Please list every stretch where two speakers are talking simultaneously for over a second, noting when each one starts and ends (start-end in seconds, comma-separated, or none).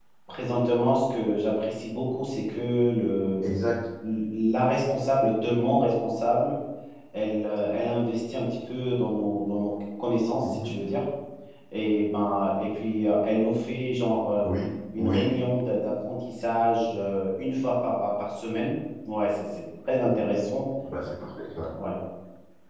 none